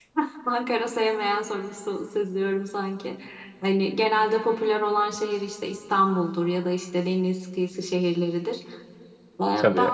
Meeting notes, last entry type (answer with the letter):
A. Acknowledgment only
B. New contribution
A